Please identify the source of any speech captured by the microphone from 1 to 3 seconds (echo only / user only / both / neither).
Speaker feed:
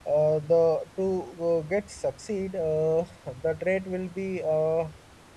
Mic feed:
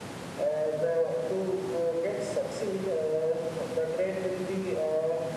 echo only